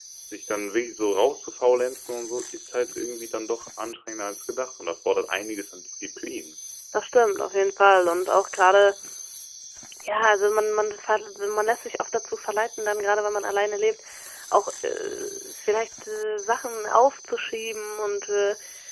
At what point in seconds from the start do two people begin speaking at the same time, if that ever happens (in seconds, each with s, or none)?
none